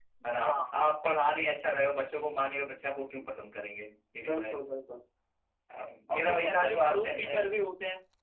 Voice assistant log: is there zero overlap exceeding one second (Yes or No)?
No